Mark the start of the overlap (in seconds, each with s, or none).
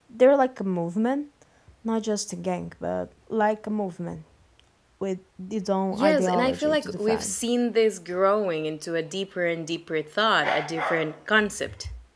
5.9 s